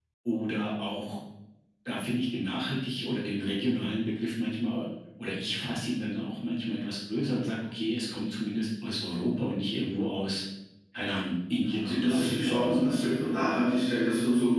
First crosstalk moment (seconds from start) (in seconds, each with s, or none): 11.6 s